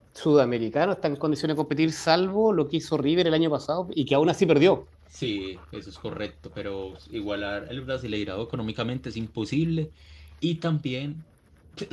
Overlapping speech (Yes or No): No